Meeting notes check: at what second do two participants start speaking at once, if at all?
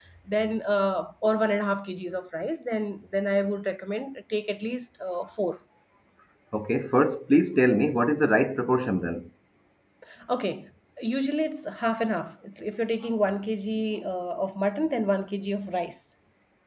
none

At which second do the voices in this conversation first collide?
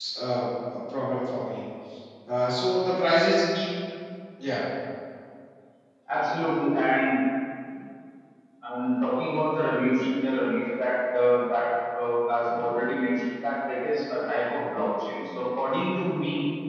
none

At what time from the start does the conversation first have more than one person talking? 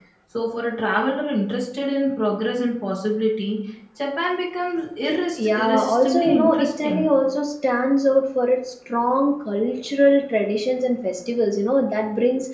5.4 s

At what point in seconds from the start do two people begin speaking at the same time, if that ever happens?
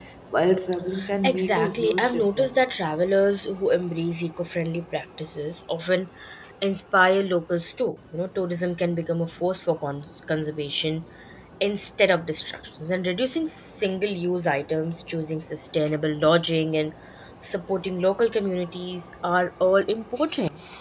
1.2 s

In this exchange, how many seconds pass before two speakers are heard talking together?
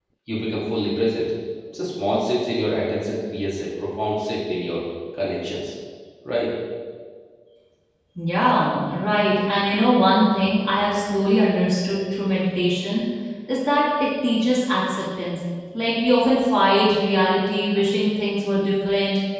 none

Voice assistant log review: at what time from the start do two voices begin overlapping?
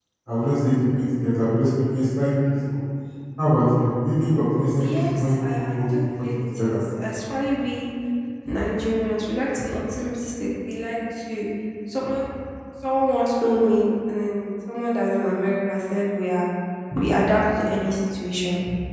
4.8 s

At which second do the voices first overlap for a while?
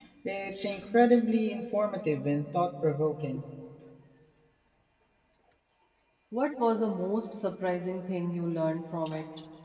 none

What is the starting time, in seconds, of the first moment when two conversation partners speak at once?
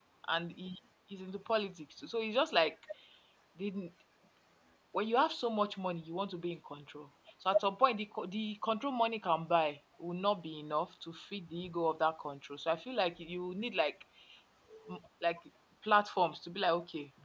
none

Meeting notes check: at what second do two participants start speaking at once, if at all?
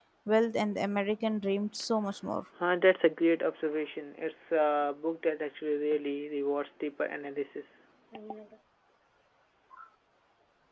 none

